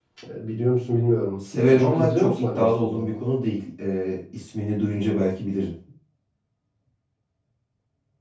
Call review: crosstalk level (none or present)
present